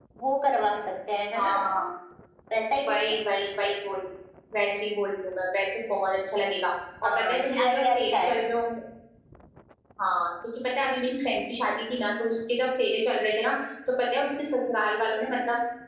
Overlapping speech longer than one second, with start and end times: 7.0-8.3

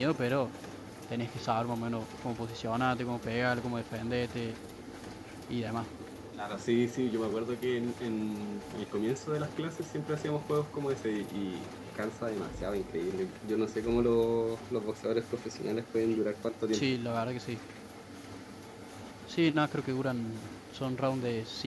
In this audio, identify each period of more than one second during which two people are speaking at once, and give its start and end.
none

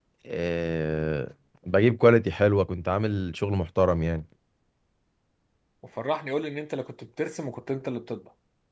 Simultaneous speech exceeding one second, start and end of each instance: none

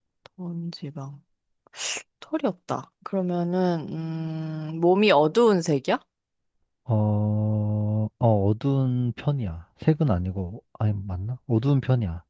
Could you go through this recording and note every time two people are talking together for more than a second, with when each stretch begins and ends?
none

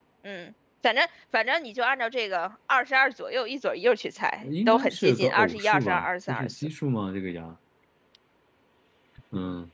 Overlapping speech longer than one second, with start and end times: 4.4-6.5

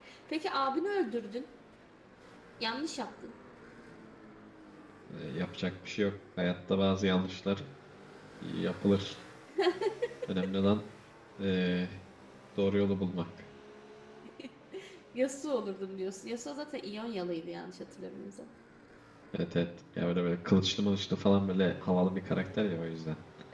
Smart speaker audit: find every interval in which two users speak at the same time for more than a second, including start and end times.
none

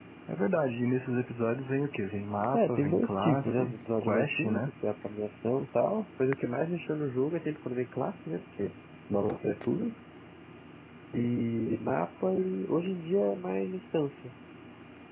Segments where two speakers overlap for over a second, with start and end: 2.5-4.7

